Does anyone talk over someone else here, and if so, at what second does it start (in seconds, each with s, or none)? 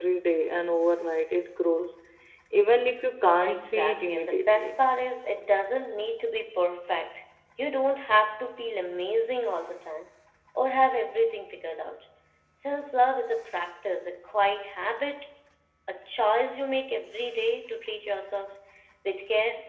3.4 s